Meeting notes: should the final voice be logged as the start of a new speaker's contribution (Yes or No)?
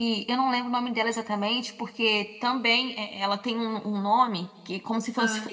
No